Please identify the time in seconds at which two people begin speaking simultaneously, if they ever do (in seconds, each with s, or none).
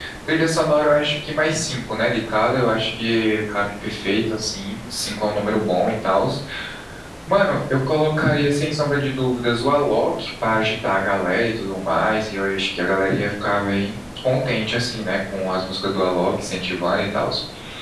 none